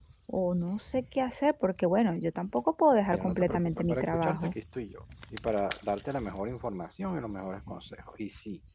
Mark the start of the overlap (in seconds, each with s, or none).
3.1 s